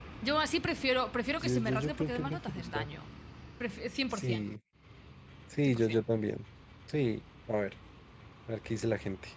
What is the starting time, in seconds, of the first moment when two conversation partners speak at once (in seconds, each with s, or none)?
1.4 s